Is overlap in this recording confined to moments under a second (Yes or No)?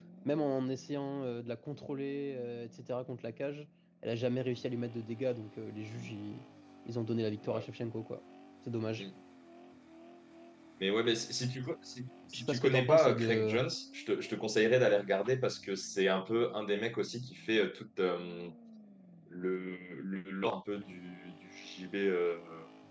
No